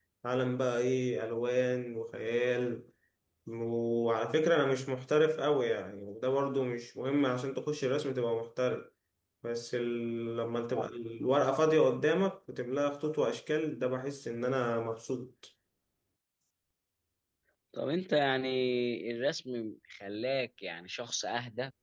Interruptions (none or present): none